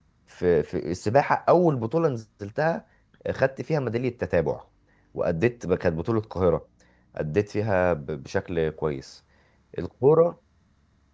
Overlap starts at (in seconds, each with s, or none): none